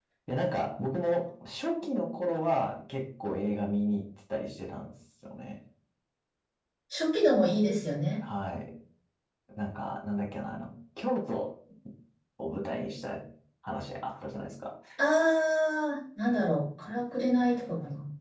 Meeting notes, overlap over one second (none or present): none